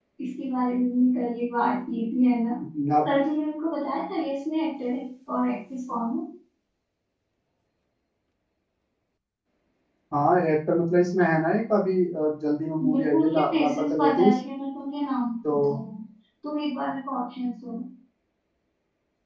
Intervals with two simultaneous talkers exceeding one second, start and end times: 12.8-14.4

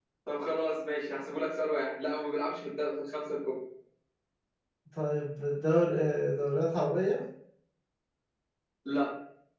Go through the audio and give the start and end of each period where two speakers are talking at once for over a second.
none

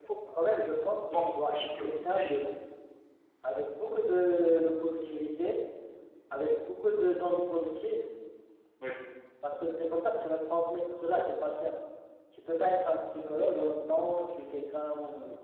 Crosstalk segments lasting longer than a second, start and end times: 1.1-2.4

